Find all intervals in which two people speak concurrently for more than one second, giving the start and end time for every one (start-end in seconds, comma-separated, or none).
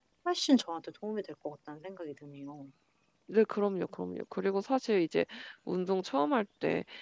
none